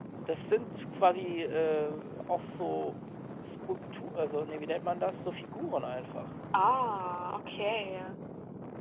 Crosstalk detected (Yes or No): No